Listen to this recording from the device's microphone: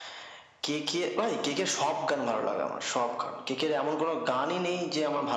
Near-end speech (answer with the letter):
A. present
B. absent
B